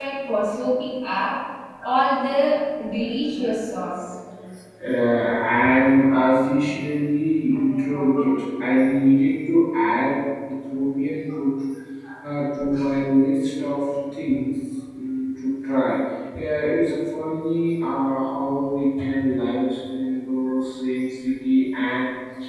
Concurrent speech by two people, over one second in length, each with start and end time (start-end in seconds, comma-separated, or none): none